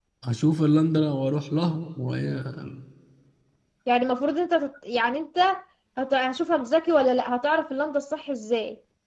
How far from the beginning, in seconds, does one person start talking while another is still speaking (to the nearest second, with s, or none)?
none